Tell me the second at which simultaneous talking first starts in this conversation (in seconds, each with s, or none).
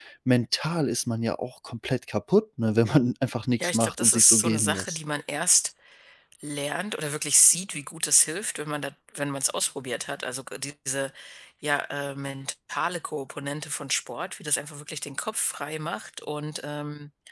3.6 s